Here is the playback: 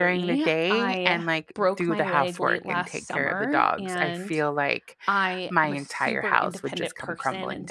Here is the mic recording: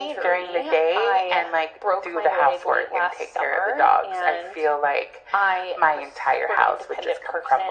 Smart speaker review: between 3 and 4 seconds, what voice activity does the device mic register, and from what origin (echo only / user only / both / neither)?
echo only